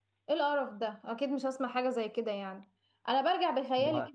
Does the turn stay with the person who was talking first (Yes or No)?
Yes